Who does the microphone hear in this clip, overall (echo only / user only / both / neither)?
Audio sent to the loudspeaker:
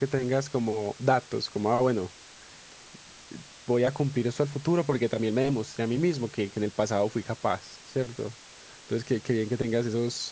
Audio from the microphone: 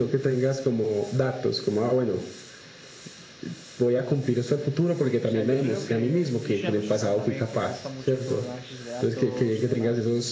both